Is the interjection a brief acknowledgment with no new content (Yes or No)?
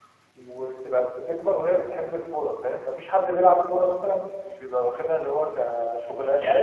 No